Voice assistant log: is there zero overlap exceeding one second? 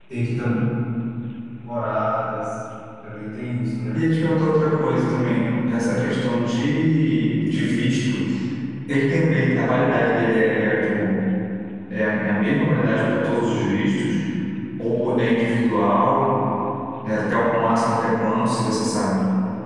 Yes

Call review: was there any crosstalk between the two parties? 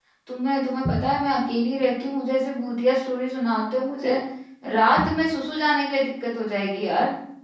No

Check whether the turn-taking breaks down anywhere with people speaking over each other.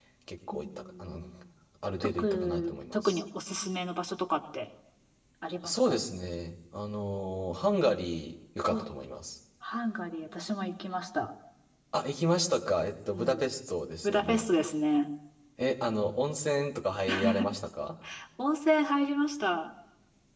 Yes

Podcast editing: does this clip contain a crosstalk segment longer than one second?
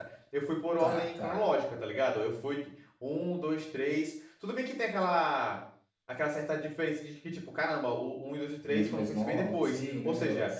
Yes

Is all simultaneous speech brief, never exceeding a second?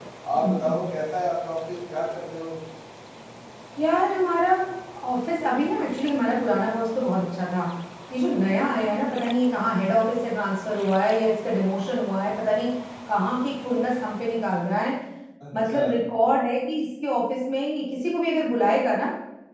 Yes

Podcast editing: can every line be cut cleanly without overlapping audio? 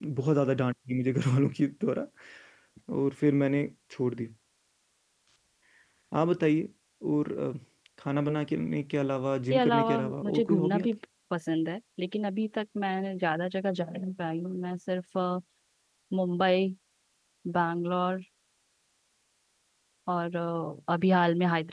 No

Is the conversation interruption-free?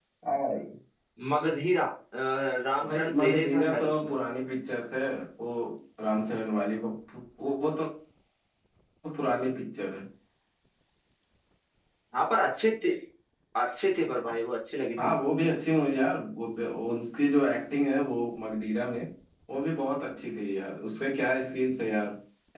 No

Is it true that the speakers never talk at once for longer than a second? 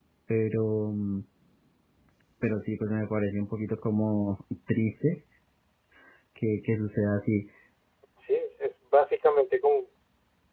Yes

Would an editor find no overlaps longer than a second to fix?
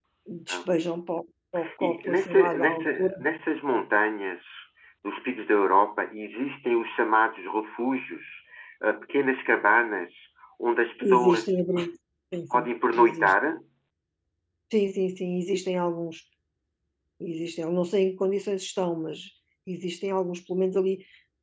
No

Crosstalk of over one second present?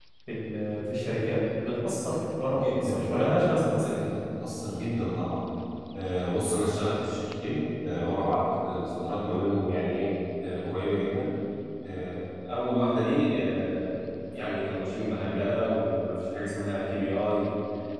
Yes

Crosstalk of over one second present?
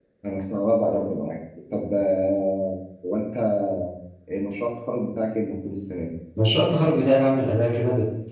No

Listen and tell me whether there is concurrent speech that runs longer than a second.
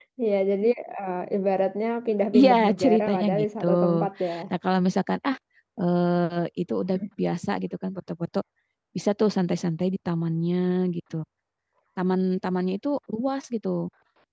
Yes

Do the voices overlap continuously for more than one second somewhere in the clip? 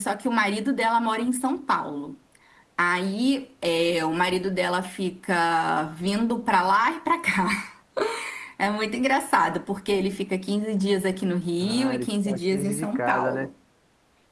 Yes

